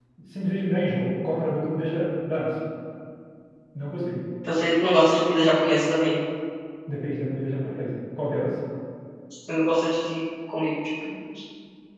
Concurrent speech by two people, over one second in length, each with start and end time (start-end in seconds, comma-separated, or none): none